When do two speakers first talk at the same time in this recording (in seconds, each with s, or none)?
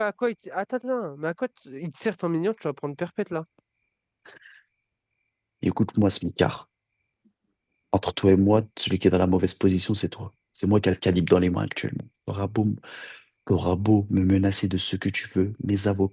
none